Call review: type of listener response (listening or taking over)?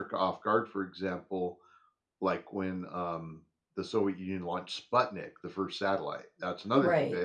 listening